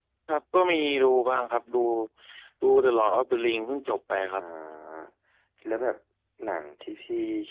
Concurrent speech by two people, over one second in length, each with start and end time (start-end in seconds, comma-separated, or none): none